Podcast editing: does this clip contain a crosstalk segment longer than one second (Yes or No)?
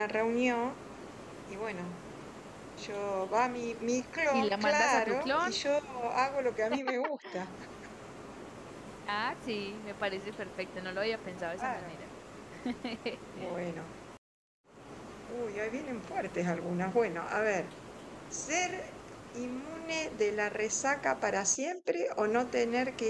Yes